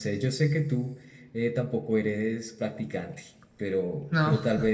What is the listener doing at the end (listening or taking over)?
listening